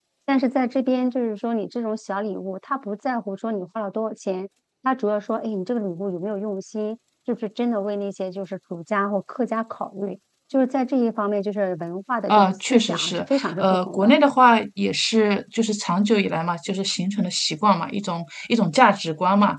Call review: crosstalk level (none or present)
present